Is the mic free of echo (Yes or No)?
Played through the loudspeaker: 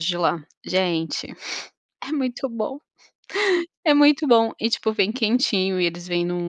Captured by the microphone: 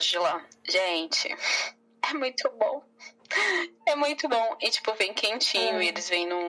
No